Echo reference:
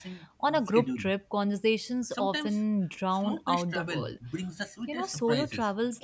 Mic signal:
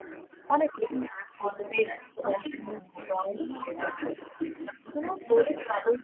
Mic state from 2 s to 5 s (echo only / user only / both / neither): both